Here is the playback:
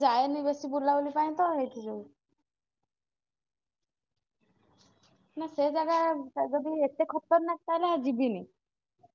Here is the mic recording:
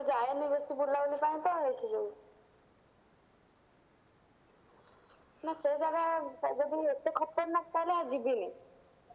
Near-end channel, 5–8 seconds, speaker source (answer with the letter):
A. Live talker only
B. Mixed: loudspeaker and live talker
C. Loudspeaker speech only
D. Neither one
C